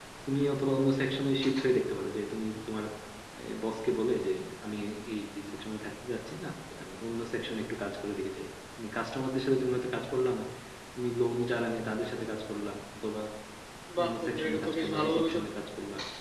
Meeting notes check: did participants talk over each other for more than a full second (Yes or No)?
Yes